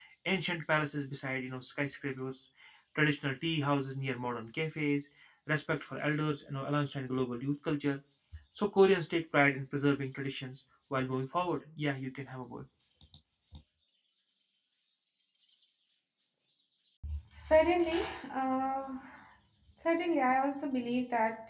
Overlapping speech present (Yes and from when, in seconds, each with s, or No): No